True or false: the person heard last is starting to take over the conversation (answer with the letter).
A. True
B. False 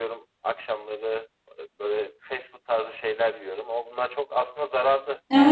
A